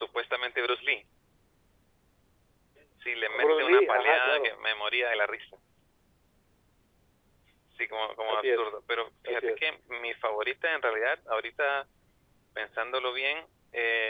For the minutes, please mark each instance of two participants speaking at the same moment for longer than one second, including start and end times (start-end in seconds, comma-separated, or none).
3.3-4.5